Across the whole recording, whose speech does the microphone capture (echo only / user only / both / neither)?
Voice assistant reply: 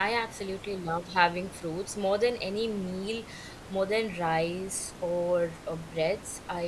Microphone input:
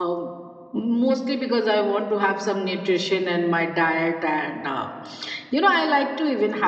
user only